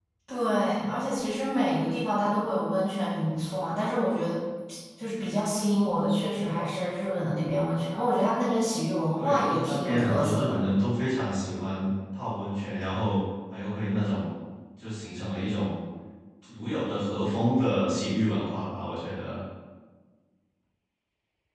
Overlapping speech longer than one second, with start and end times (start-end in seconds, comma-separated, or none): 9.2-10.6